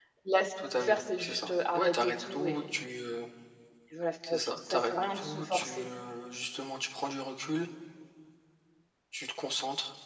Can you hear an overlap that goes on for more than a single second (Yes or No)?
Yes